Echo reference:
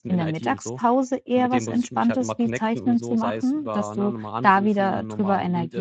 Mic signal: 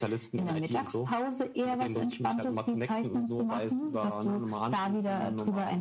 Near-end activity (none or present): none